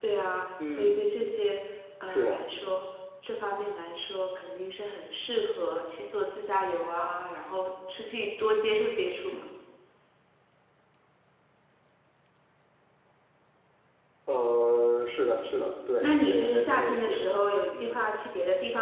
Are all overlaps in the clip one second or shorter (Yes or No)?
No